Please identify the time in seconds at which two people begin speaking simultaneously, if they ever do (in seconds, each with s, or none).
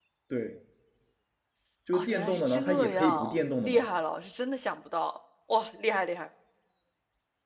1.9 s